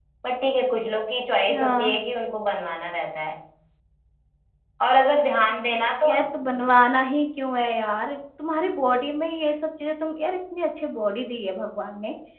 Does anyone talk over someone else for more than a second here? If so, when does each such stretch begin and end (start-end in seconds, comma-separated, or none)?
none